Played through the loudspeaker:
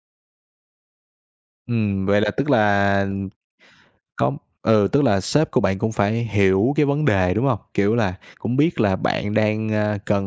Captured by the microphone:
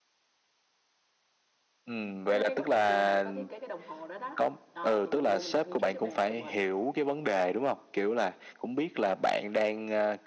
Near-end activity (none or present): present